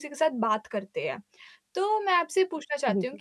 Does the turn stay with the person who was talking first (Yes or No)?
Yes